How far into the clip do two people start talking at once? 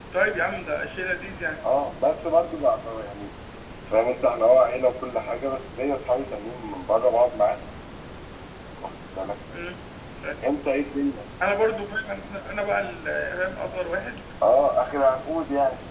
none

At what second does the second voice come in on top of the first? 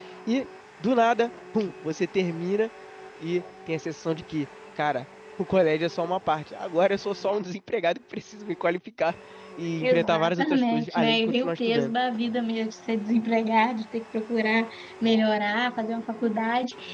9.8 s

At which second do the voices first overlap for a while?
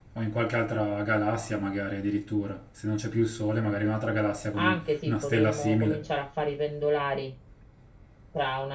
4.5 s

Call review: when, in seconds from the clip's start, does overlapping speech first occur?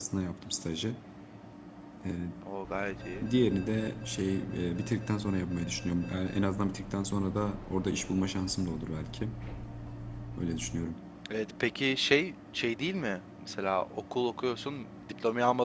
none

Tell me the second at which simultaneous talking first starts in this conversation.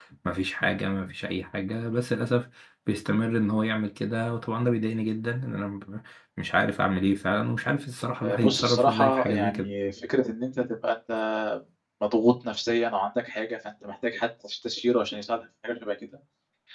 8.2 s

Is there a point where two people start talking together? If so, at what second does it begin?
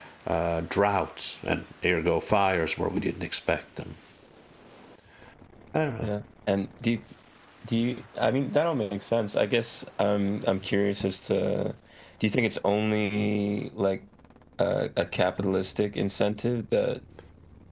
none

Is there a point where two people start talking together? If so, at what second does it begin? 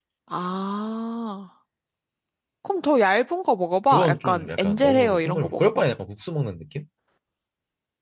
3.9 s

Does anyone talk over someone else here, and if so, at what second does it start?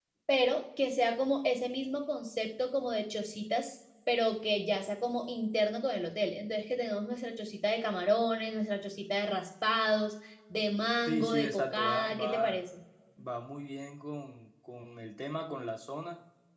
11.0 s

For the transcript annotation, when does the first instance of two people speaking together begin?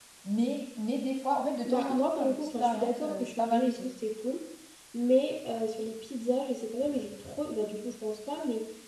1.6 s

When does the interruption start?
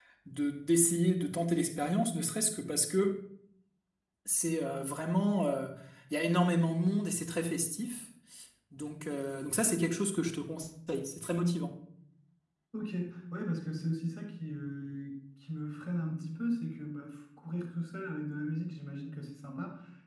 none

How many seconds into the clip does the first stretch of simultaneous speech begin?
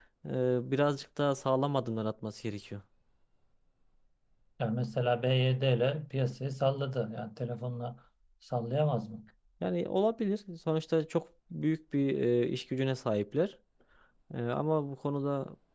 none

